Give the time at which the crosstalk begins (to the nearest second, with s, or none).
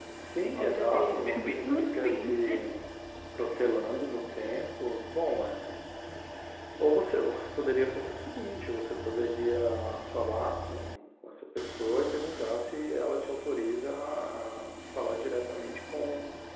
1 s